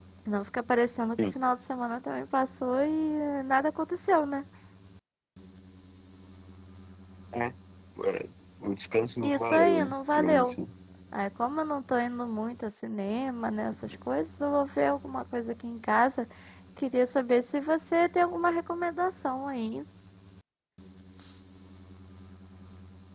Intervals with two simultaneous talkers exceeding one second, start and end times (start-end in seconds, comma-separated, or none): 9.2-10.6